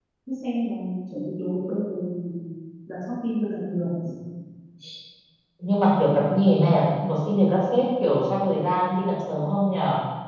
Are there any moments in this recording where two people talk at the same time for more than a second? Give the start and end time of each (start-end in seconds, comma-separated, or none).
none